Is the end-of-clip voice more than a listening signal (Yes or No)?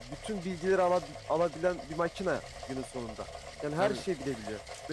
No